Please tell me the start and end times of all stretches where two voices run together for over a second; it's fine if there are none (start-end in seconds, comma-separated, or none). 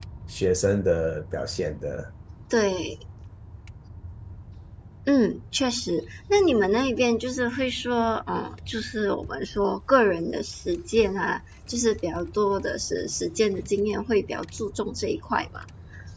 none